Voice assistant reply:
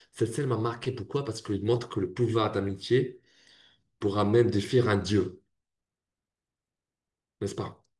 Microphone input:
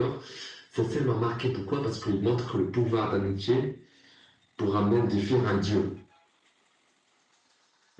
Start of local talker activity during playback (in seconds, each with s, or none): none